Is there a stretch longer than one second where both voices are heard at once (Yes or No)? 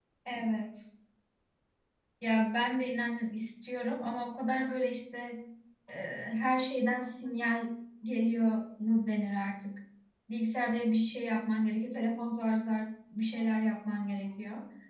No